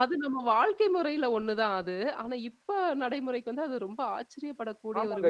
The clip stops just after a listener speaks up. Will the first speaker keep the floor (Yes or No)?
No